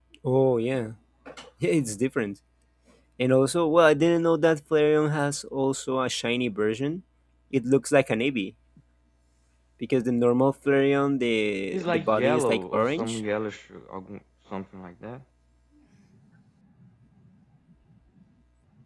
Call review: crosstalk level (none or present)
present